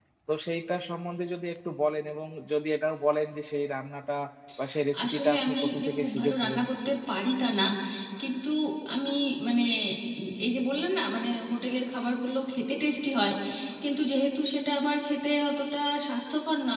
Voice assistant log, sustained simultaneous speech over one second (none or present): present